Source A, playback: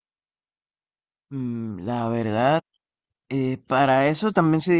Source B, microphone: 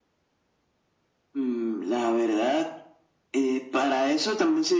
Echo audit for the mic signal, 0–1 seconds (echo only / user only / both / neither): neither